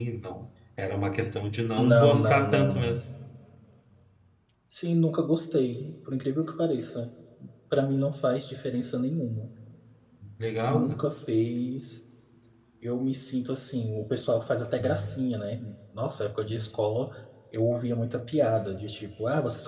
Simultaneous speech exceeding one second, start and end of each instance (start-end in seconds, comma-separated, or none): 1.8-3.0